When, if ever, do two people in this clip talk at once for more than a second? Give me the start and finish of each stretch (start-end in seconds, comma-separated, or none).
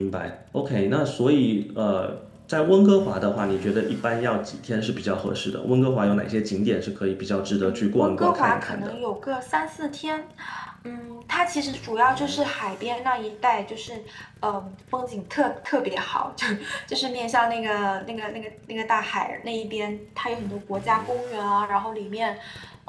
7.6-8.9